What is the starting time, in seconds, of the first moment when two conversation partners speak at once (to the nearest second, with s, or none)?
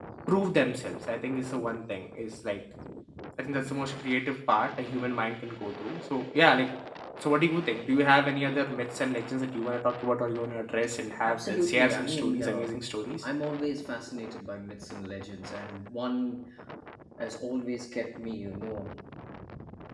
11 s